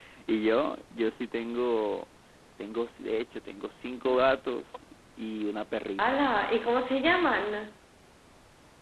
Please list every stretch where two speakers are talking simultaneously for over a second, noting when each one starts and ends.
none

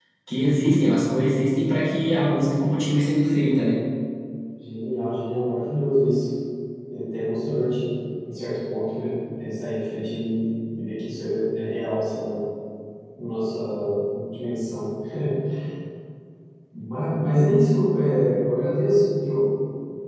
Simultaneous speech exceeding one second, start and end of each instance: none

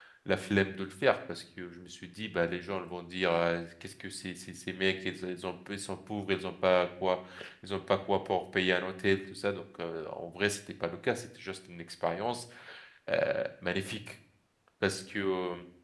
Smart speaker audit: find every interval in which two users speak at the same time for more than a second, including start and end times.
none

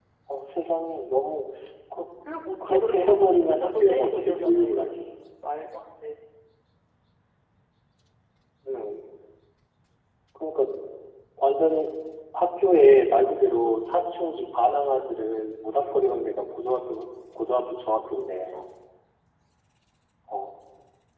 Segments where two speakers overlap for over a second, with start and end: 2.7-4.9

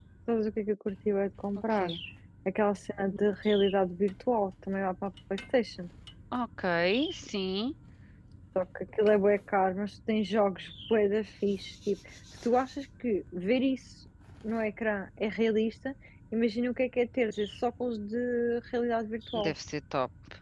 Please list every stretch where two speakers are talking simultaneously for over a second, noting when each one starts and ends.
none

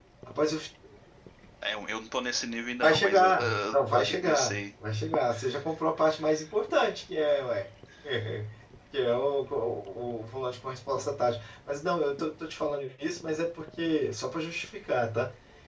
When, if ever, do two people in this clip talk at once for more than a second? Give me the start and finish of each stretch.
2.8-4.6

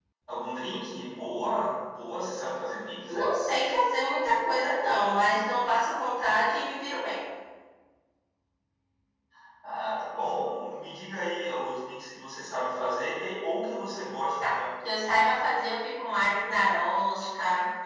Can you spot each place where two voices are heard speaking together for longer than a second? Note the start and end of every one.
none

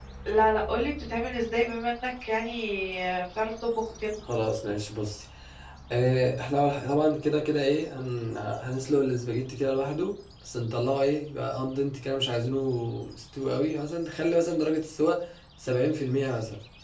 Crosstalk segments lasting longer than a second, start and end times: none

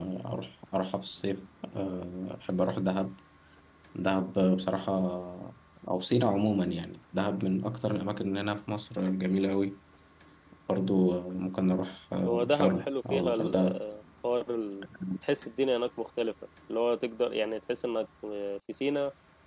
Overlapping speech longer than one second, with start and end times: 12.5-13.8

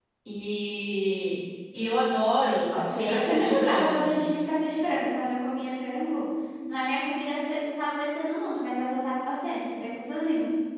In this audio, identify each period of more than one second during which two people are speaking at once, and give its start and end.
2.7-4.1

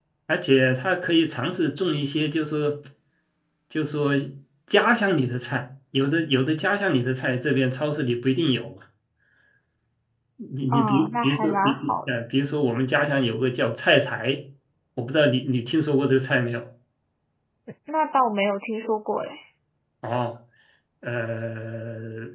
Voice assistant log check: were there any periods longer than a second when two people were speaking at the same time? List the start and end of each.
10.7-11.9

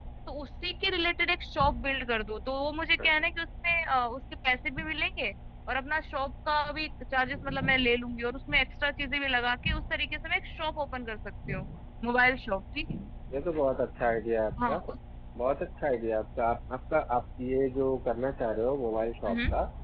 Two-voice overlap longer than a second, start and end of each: none

